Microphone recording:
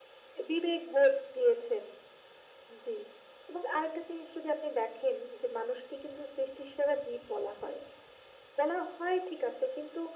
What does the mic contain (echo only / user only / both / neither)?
echo only